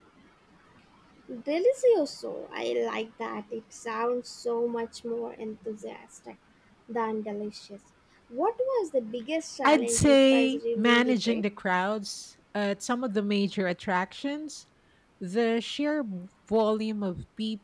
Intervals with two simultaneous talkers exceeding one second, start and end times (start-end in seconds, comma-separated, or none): 9.6-11.4